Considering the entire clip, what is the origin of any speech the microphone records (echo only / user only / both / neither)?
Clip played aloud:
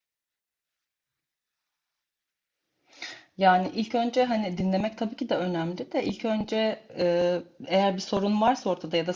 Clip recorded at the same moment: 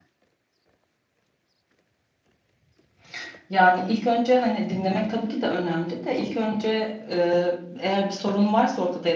echo only